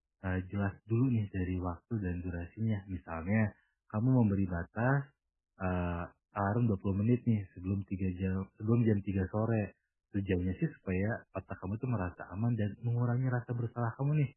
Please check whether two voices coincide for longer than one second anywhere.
No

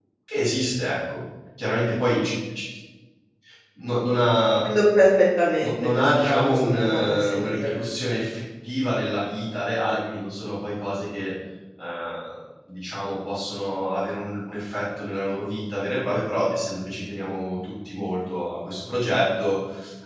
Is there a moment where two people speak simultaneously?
Yes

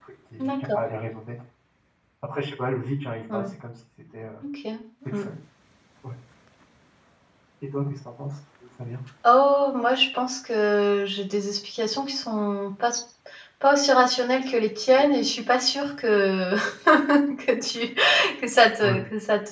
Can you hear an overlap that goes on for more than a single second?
No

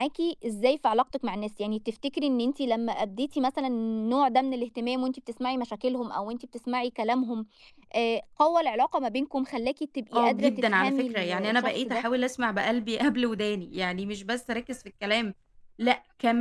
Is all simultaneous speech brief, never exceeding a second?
No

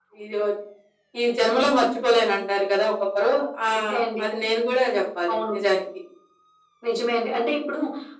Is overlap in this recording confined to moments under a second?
Yes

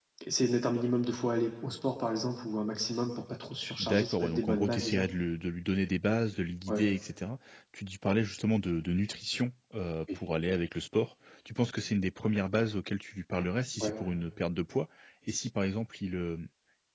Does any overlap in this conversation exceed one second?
Yes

